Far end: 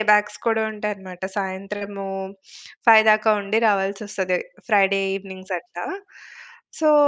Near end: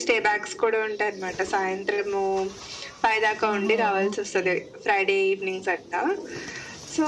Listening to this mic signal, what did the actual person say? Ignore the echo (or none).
ఓహో! ఓకే.